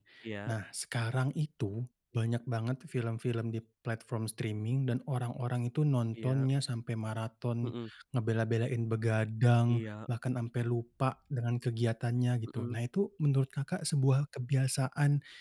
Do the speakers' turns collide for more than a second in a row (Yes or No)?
No